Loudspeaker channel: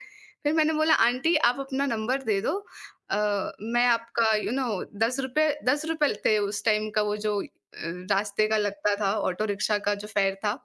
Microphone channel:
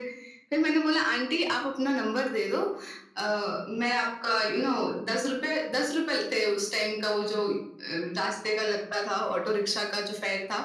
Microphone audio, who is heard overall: echo only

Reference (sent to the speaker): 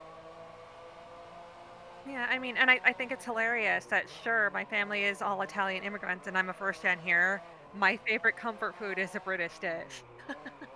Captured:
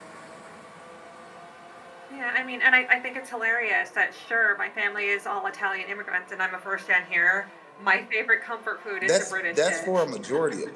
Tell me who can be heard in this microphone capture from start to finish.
both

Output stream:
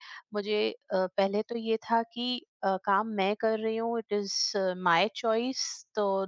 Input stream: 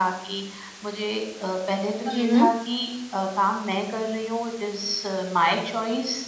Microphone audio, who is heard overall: both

